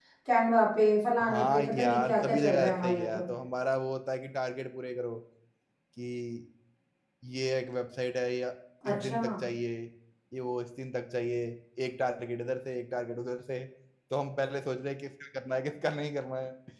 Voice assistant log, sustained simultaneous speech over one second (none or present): present